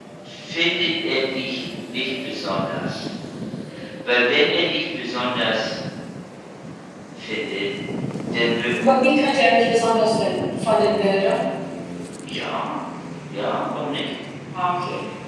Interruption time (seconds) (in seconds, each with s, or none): none